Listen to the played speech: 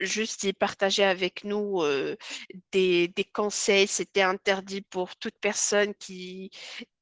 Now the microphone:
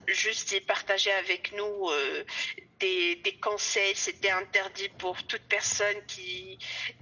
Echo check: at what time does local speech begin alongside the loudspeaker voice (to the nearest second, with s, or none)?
none